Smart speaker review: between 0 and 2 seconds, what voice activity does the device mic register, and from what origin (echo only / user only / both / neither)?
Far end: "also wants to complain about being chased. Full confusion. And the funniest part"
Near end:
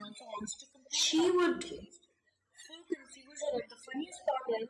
both